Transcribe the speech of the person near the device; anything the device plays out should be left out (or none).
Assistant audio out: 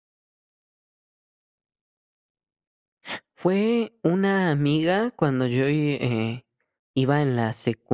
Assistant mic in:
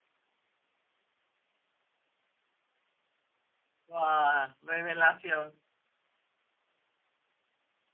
Wao, revelación.